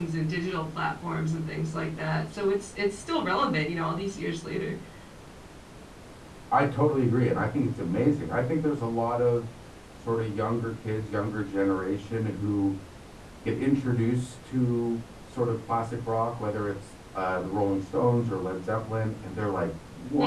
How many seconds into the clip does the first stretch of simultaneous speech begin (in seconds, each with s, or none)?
none